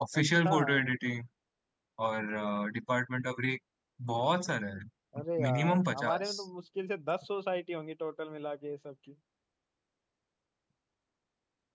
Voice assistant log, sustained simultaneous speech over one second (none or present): present